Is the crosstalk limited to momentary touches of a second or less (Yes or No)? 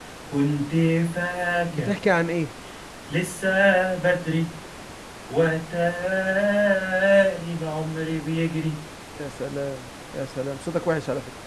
Yes